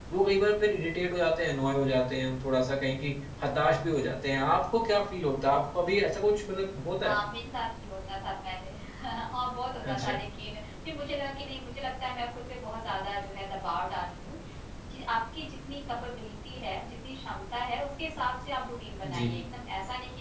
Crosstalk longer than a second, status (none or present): none